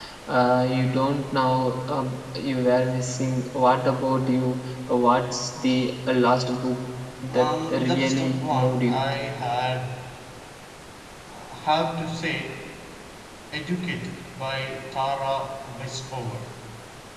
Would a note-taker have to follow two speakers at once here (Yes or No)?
Yes